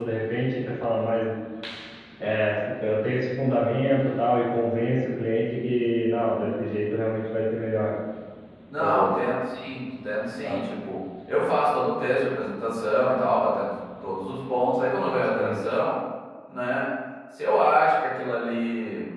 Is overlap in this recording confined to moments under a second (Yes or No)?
Yes